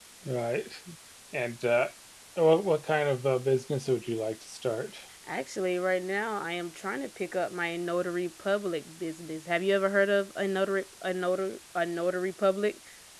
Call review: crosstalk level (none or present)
none